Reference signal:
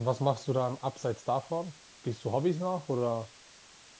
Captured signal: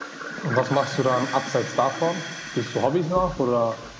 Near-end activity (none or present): none